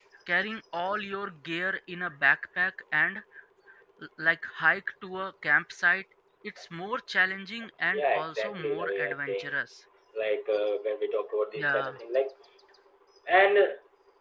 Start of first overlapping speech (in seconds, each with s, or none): 7.9 s